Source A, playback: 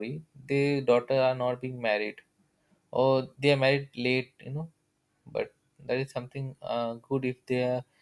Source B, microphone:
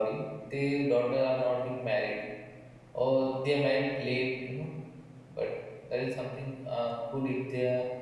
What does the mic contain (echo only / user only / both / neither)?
echo only